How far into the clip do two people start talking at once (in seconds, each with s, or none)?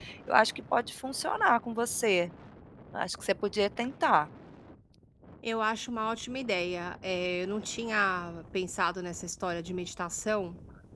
none